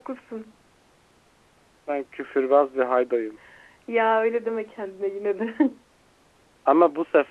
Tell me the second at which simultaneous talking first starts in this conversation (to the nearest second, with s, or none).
none